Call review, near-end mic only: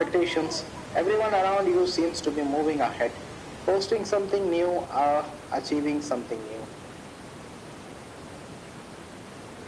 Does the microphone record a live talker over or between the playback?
No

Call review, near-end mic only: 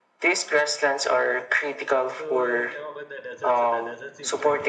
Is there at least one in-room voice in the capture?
Yes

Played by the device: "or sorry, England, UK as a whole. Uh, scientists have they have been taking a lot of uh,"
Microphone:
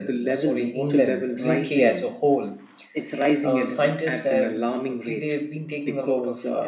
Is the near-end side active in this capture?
Yes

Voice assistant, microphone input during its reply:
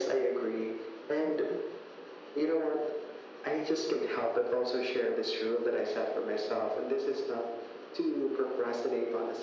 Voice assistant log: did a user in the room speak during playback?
No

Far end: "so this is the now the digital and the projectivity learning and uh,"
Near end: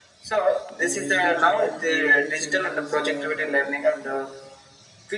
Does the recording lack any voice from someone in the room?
No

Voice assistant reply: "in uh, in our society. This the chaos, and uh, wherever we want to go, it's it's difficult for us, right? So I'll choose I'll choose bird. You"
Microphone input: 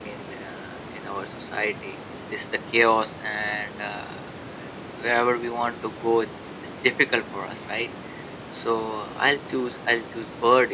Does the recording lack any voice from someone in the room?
Yes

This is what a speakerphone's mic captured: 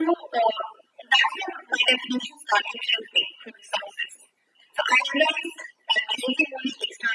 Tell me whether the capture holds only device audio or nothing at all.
Yes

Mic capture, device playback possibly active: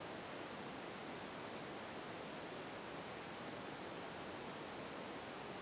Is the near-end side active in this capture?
No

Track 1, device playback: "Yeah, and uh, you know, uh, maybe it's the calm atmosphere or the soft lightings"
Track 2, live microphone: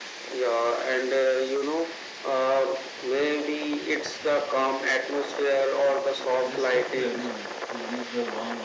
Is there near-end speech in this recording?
Yes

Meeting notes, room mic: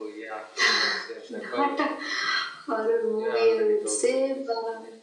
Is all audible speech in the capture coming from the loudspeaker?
Yes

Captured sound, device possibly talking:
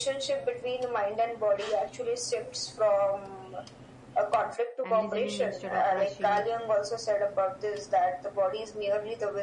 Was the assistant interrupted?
Yes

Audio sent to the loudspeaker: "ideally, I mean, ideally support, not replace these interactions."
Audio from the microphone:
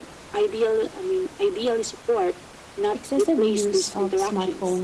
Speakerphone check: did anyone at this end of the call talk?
Yes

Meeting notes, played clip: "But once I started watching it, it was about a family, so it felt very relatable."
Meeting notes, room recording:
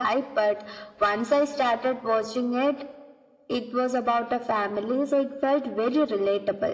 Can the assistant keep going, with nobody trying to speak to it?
Yes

